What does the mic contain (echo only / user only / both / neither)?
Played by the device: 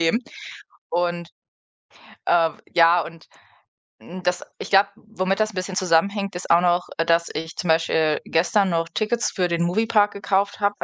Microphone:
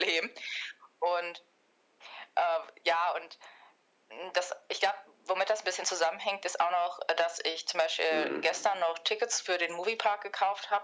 both